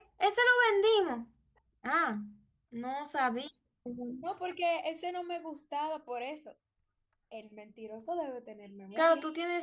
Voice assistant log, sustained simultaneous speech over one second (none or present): none